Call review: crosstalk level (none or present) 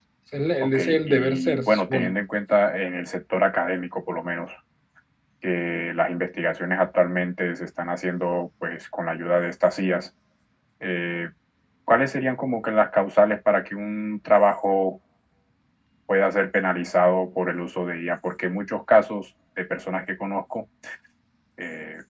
present